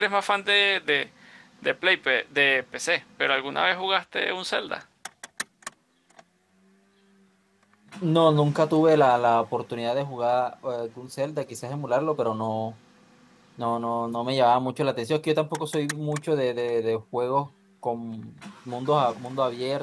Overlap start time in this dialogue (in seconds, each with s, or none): none